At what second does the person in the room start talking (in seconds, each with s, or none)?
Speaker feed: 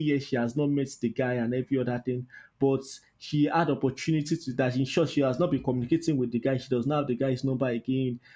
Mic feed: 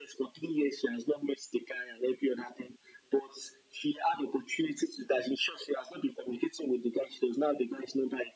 none